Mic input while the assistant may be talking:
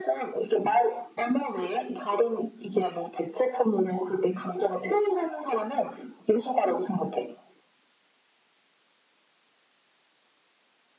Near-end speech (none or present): none